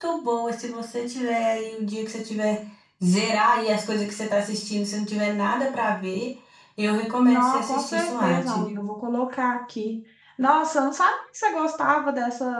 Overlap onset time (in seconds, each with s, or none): 7.2 s